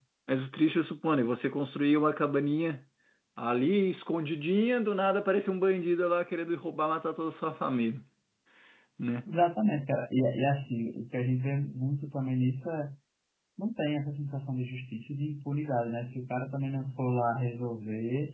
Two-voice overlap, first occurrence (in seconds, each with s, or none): none